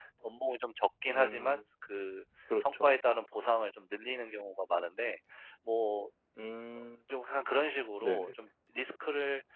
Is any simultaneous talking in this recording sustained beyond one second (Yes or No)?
No